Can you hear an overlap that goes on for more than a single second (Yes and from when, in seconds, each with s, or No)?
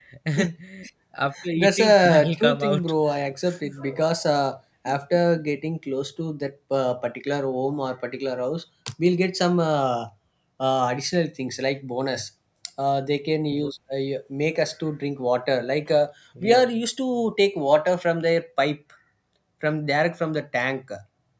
Yes, from 1.6 s